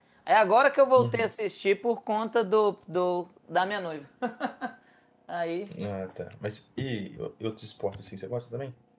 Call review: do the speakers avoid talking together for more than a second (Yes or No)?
Yes